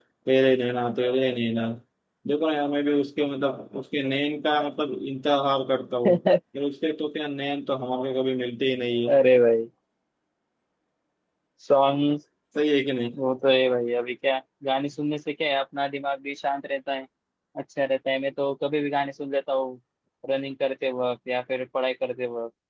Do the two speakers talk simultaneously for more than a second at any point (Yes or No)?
No